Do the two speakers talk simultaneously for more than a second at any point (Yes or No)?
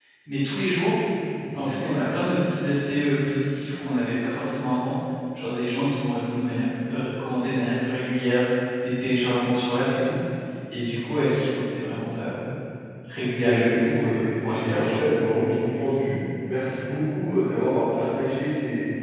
Yes